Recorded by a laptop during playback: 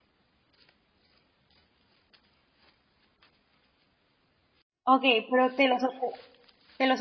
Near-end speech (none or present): present